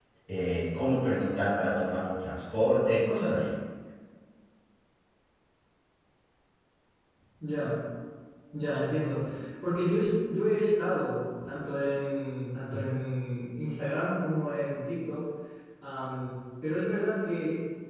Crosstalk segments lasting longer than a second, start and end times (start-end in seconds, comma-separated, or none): none